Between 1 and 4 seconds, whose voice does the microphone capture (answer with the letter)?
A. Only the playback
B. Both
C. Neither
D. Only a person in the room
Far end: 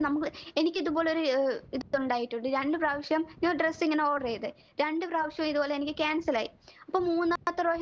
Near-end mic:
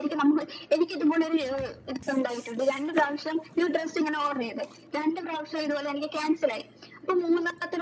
A